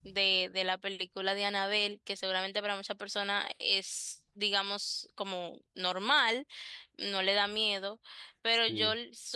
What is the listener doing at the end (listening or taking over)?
listening